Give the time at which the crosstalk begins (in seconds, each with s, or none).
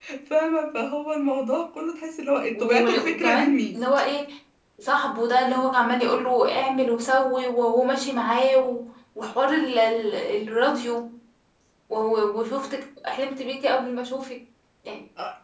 2.5 s